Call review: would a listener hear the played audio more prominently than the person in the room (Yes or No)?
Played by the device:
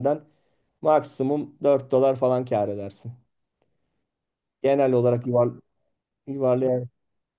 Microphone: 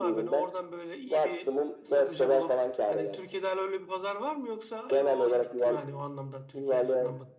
Yes